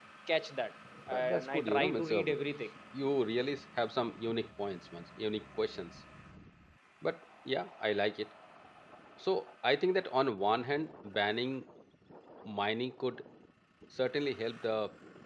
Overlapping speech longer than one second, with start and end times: 1.1-2.4

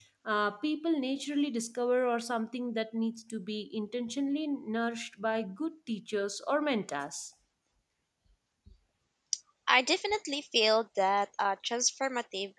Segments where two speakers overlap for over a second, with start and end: none

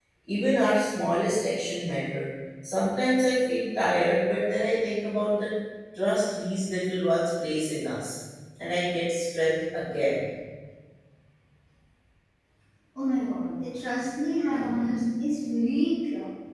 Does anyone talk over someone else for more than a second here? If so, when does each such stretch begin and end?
none

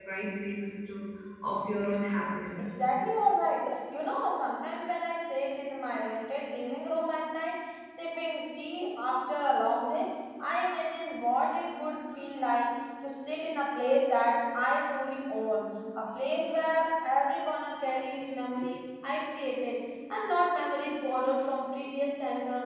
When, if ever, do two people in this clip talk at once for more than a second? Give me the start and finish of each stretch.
none

